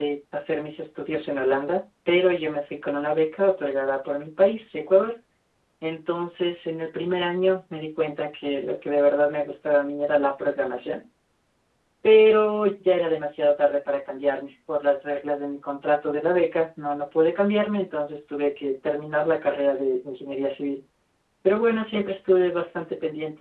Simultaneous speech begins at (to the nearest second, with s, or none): none